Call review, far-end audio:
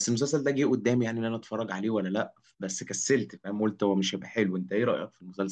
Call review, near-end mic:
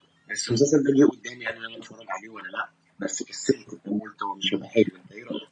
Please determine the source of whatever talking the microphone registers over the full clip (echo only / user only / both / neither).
echo only